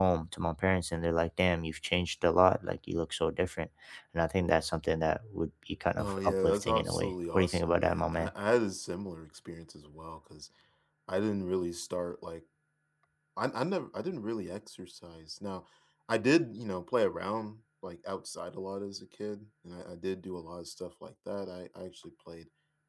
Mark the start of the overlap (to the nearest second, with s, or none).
6 s